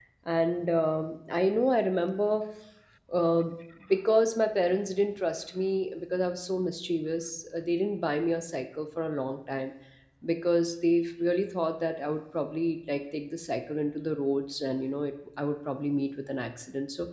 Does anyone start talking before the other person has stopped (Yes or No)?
No